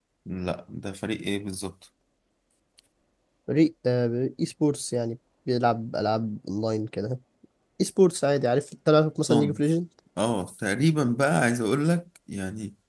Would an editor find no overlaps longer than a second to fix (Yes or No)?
Yes